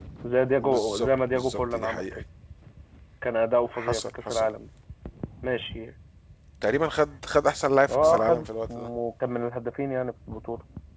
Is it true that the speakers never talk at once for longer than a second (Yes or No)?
No